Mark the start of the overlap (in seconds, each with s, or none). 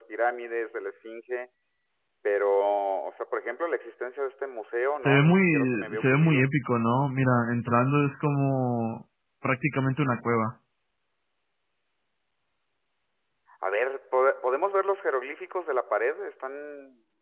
5.0 s